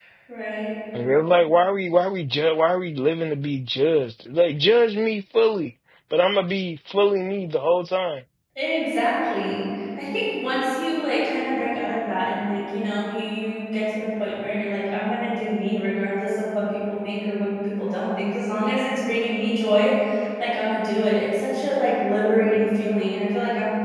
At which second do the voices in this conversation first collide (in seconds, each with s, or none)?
none